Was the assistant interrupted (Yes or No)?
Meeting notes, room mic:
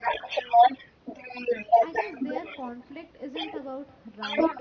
Yes